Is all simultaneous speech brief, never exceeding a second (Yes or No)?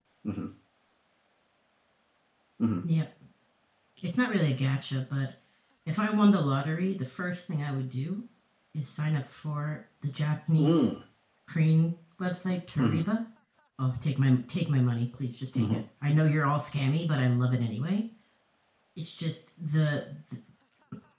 Yes